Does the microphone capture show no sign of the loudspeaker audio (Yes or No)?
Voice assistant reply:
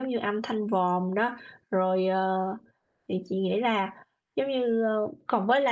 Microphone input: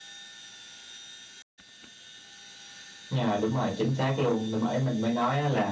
Yes